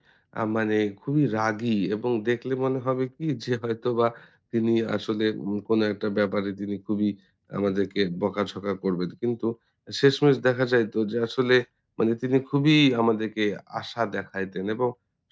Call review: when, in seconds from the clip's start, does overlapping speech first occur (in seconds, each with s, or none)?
none